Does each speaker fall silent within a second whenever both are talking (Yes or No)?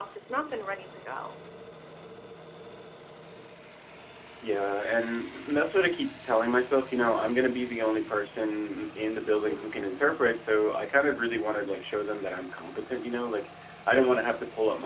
Yes